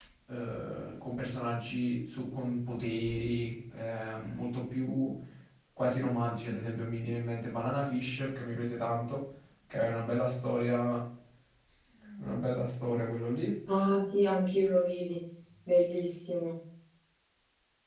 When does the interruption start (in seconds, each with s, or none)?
none